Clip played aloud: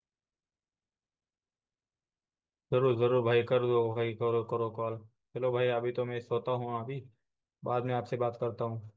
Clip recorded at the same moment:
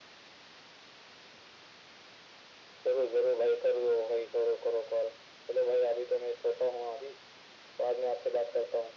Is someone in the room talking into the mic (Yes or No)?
No